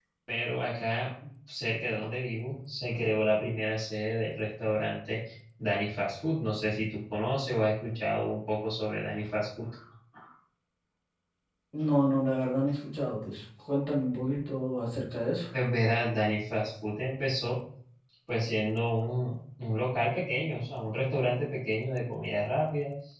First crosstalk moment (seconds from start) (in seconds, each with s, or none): none